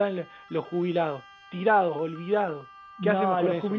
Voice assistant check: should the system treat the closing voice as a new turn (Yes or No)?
Yes